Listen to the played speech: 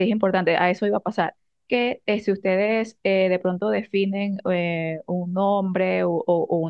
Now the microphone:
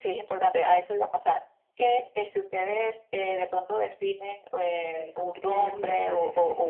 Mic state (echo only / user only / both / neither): both